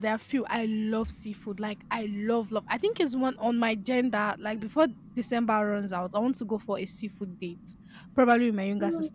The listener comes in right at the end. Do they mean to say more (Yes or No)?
No